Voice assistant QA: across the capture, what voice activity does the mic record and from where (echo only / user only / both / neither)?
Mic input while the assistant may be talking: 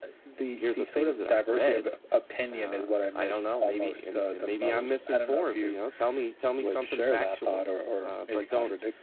echo only